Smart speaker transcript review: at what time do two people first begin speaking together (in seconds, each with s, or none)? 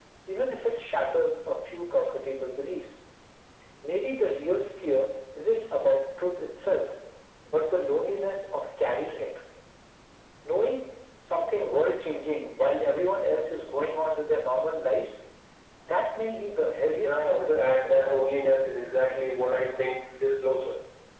17.0 s